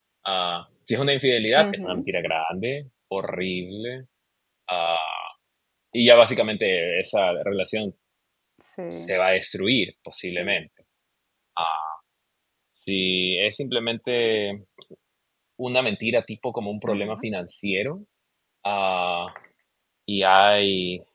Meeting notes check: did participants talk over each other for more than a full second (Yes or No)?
No